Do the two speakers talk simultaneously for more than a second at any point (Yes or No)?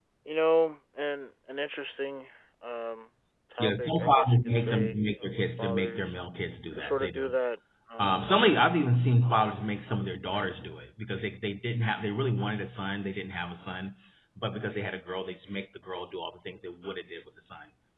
Yes